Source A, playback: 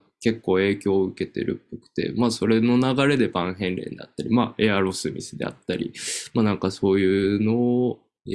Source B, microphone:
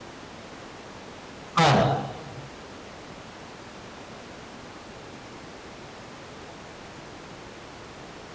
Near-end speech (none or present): present